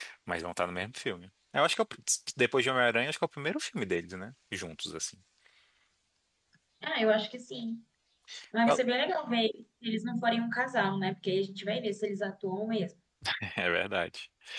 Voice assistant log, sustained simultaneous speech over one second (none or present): none